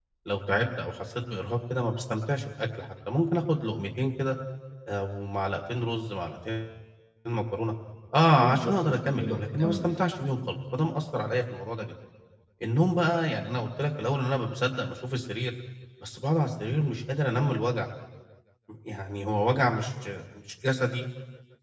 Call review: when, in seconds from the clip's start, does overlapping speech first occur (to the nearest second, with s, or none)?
8 s